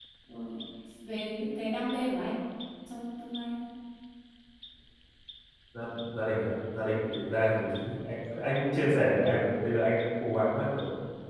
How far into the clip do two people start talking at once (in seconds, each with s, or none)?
none